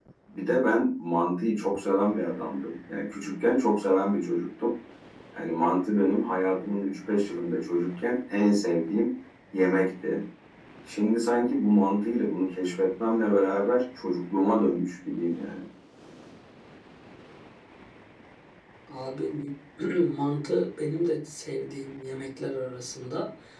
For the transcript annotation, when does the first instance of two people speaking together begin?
none

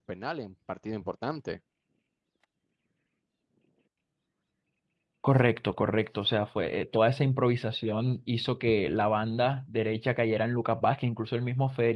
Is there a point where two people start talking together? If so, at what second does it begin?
none

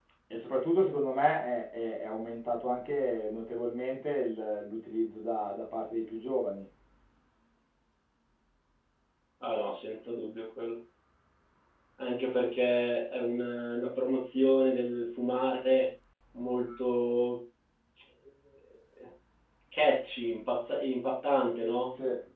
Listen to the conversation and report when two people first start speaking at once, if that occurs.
none

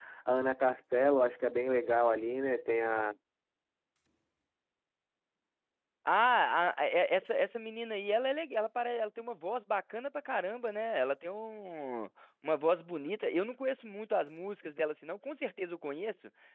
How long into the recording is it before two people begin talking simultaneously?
none

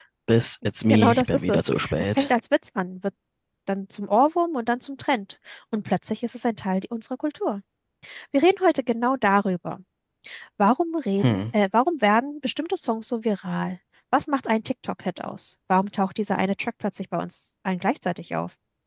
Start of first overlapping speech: 0.9 s

